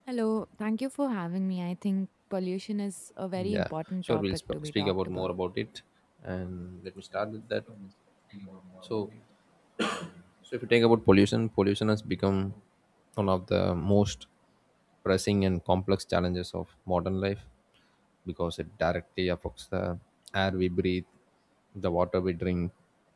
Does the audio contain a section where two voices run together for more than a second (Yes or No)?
Yes